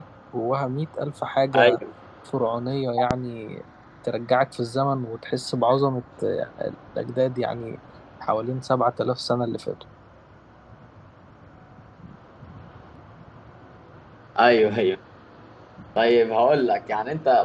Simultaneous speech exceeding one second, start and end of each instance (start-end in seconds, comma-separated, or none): none